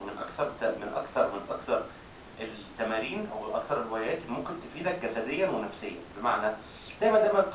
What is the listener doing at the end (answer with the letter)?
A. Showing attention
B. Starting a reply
A